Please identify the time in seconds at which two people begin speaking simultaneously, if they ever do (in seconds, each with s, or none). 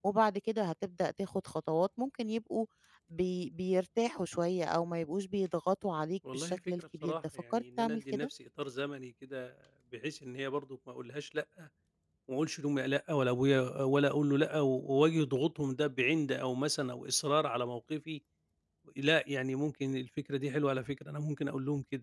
6.2 s